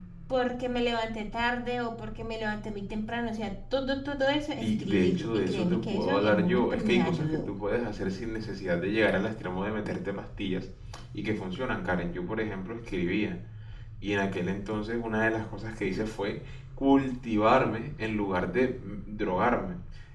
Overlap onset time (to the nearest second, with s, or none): 5 s